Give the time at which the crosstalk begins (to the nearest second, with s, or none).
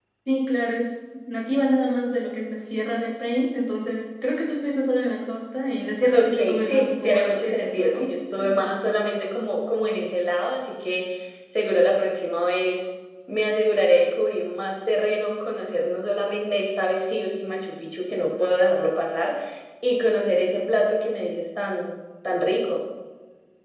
6 s